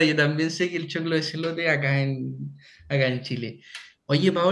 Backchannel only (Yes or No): Yes